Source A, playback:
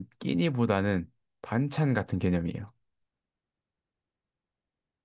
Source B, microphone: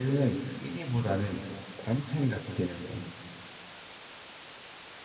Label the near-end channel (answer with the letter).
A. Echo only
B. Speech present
A